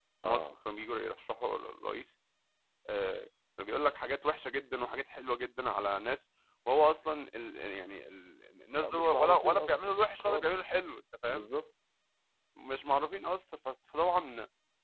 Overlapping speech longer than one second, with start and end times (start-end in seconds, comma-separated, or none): 8.8-10.5